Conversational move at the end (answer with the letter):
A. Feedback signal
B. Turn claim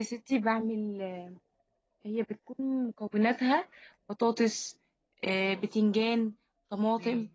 A